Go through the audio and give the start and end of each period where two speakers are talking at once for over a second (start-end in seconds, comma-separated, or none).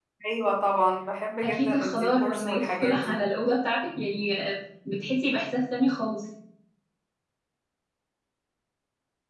1.4-3.2